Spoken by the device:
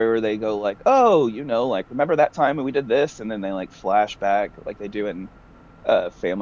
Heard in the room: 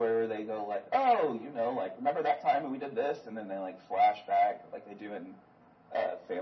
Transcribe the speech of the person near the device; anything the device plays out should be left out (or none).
none